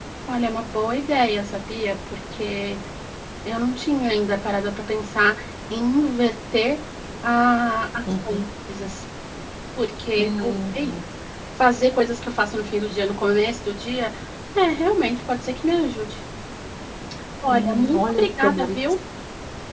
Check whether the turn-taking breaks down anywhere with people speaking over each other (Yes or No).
Yes